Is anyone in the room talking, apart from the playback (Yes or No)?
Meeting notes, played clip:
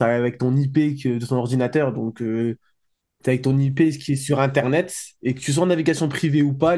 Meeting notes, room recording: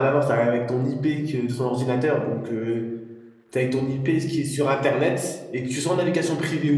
No